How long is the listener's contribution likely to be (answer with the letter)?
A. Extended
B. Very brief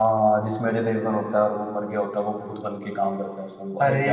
A